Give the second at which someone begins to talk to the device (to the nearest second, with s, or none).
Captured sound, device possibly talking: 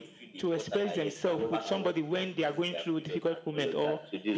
1 s